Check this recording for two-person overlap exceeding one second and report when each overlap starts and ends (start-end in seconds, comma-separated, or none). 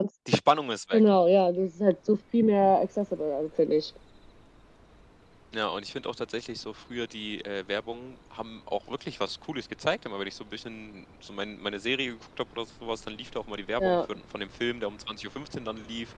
none